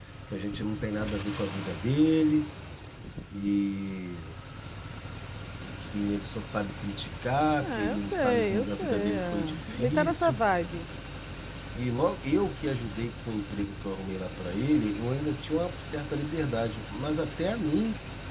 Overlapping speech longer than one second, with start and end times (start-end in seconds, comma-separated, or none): 7.6-10.4